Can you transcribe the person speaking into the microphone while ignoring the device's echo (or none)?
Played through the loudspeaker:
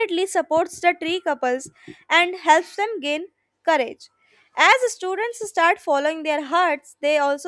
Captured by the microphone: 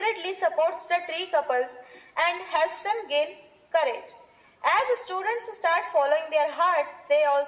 none